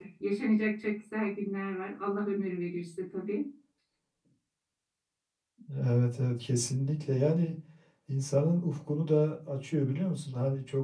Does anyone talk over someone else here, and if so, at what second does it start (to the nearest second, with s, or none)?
none